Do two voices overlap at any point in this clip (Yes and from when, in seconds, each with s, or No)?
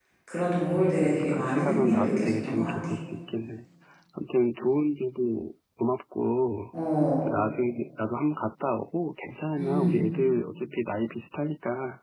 Yes, from 1.0 s